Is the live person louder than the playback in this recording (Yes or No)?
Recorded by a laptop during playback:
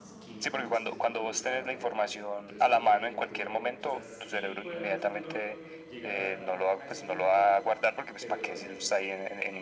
No